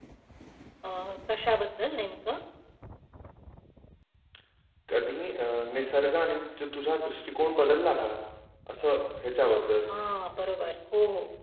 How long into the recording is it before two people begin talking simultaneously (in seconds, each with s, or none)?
none